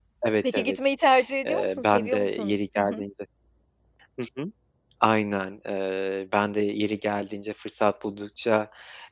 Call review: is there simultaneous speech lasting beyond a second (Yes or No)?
Yes